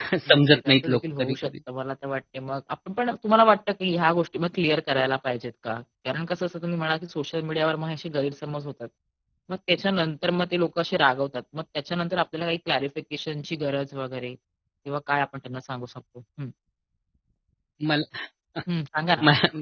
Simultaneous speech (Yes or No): Yes